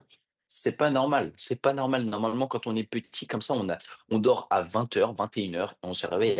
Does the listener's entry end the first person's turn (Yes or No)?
No